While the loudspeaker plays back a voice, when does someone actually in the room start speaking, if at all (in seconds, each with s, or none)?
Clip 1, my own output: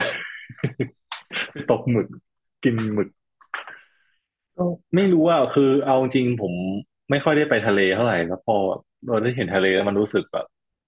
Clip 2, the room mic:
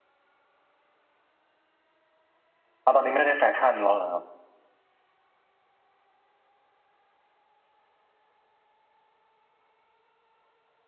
2.8 s